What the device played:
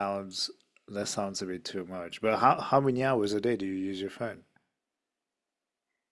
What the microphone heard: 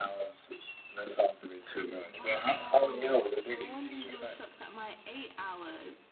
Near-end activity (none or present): present